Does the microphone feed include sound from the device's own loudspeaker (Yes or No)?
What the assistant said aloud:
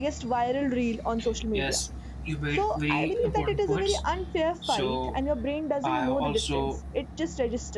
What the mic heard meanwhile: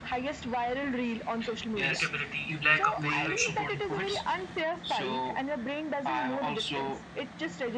Yes